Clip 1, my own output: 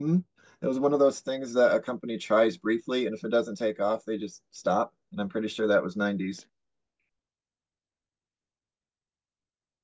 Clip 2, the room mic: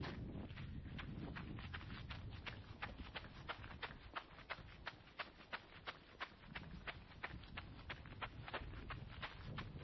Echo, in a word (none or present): none